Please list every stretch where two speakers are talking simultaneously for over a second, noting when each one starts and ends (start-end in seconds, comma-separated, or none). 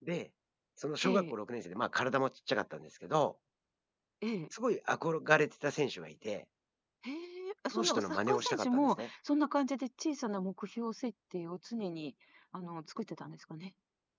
7.7-9.1